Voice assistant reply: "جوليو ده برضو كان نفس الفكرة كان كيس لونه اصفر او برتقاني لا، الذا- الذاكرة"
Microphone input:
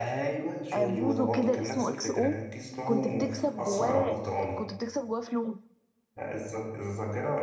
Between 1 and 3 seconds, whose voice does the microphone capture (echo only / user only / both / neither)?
both